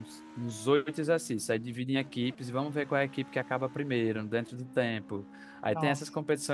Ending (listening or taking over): listening